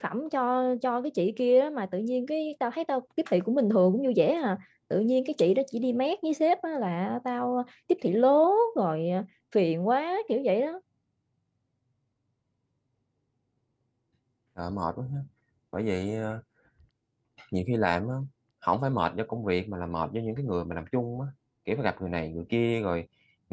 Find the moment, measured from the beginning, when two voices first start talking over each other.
none

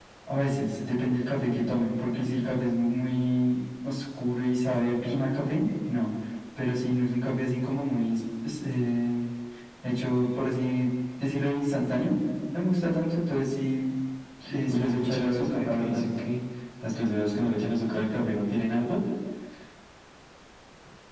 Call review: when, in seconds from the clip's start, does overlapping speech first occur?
14.7 s

